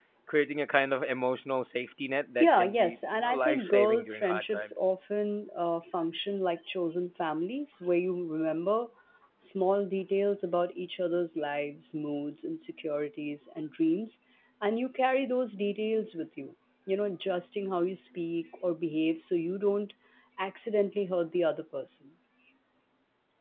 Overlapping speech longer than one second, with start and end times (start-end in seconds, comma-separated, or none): 2.4-4.7